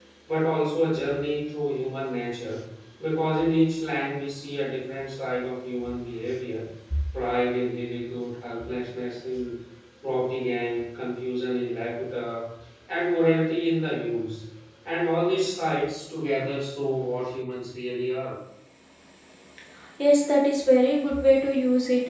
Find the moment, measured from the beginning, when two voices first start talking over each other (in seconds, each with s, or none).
none